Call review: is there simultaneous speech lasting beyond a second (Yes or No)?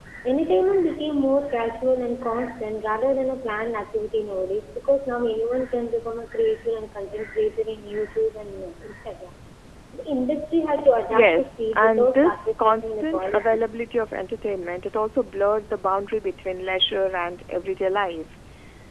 Yes